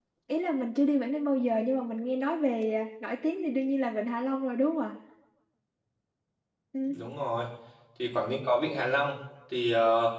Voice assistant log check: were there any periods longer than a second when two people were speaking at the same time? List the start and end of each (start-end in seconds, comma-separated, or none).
none